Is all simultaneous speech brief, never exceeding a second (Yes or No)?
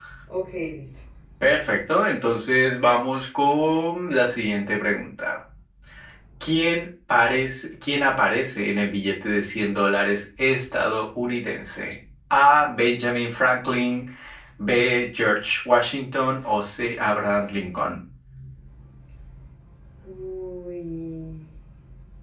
Yes